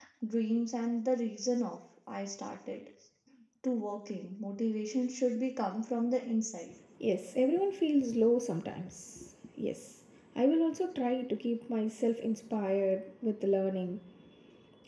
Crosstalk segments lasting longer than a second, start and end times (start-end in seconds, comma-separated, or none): none